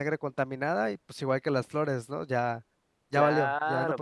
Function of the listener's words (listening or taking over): taking over